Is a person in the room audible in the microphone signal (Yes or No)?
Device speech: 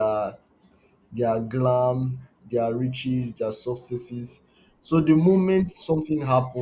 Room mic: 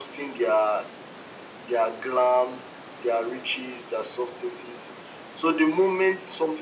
No